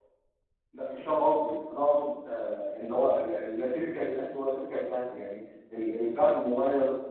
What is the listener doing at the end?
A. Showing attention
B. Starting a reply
A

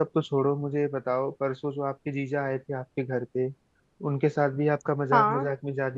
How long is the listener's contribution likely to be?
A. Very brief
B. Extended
A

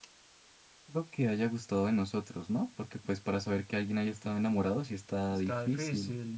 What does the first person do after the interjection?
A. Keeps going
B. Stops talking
B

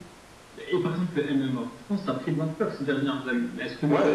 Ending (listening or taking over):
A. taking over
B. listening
A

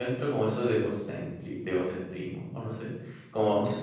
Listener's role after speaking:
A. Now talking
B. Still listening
B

